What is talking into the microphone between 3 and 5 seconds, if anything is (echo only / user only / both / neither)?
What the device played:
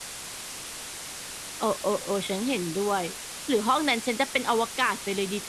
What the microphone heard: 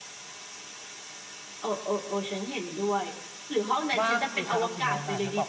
both